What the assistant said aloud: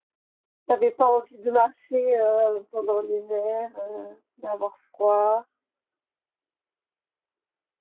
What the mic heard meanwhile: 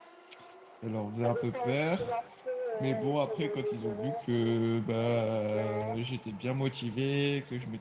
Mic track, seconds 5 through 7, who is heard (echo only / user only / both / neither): both